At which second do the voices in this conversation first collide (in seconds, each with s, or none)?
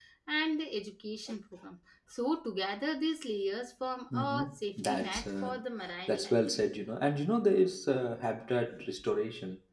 4.1 s